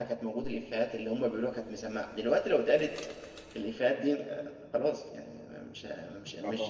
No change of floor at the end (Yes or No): Yes